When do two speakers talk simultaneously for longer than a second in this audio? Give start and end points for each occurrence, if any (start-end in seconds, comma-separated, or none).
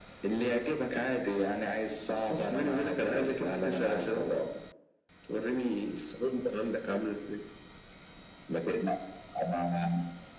2.3-4.3